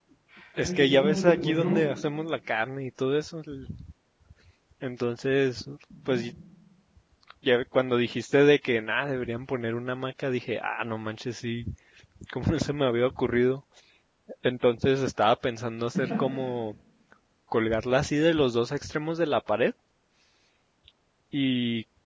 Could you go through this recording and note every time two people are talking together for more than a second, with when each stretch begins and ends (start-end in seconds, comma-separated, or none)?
0.6-1.9